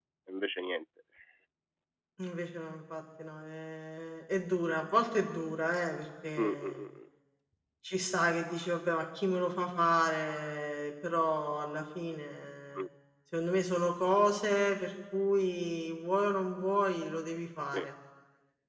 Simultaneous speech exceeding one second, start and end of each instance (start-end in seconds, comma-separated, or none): none